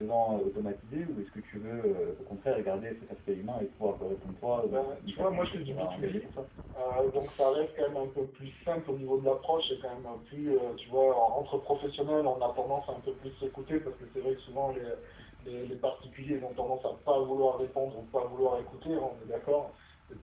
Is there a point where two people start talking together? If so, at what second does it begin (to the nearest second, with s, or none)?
5 s